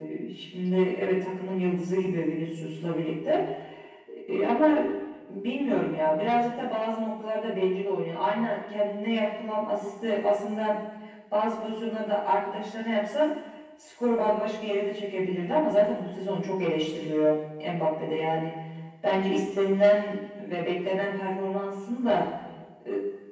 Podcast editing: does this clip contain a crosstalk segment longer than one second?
No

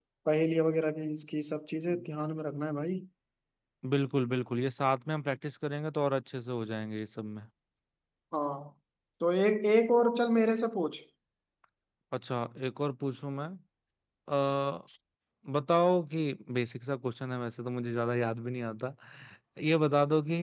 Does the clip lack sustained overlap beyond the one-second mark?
Yes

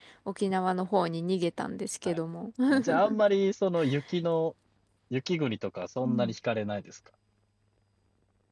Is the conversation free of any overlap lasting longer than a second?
Yes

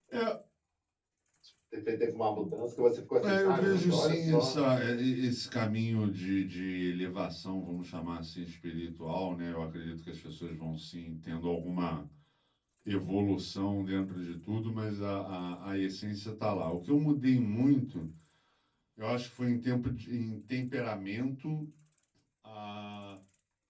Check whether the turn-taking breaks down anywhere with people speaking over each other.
Yes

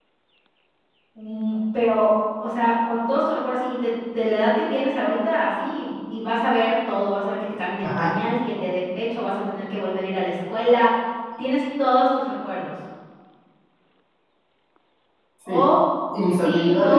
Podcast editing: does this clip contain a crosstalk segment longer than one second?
No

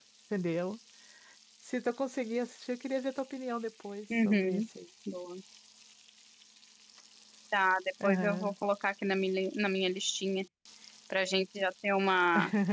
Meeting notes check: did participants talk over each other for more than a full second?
No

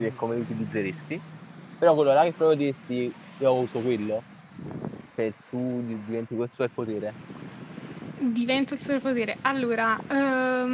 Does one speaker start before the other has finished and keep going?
No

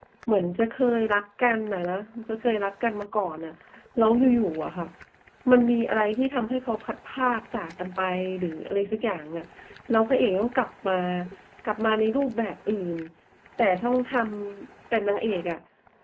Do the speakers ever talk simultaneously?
No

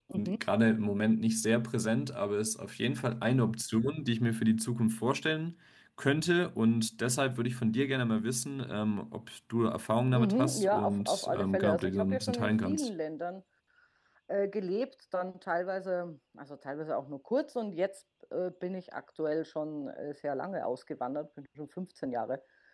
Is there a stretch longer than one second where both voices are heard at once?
Yes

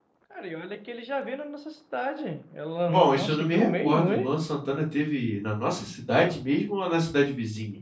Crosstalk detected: Yes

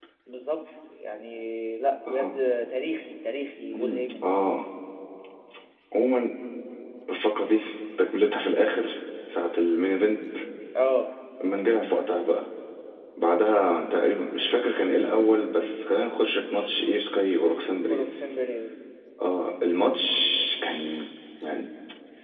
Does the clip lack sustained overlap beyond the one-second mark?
Yes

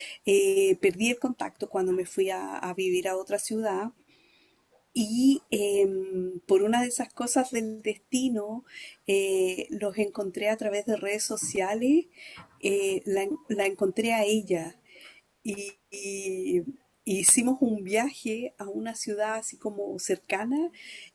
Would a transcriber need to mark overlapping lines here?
No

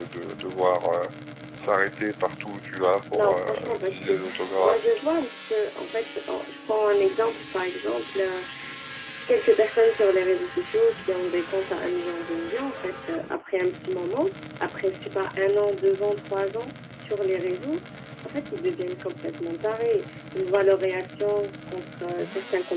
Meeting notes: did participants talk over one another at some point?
Yes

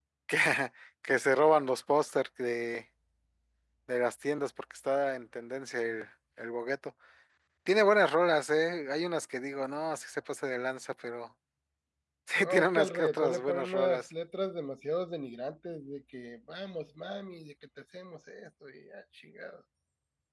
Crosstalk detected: Yes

